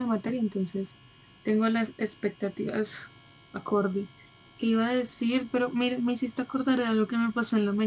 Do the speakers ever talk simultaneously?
No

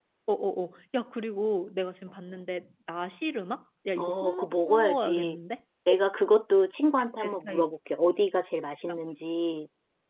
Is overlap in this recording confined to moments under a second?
No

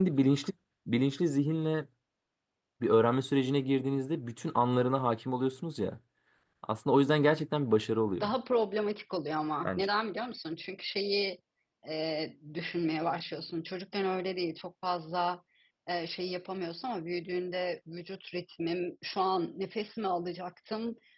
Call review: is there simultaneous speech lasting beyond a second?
No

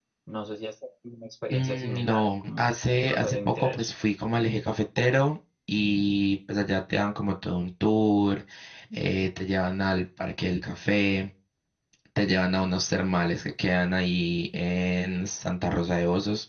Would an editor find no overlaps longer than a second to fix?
No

